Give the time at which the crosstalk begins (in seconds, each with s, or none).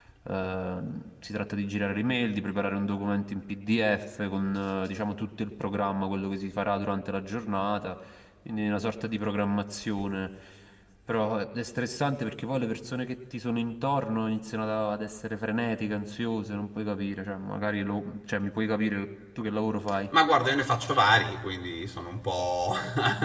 none